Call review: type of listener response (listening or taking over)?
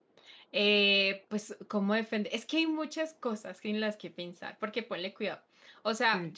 listening